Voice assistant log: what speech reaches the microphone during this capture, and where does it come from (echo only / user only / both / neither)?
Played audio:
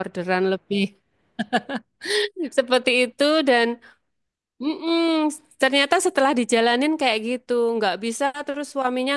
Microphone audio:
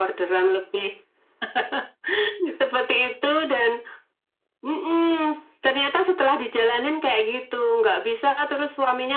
echo only